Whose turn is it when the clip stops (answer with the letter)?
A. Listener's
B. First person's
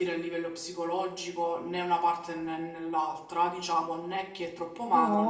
A